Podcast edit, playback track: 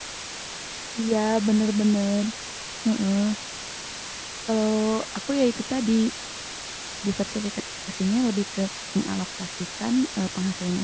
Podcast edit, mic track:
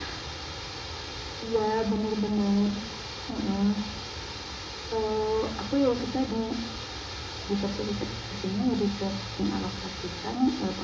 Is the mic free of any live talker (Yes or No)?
Yes